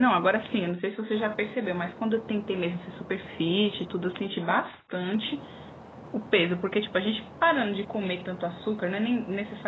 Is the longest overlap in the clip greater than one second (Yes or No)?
No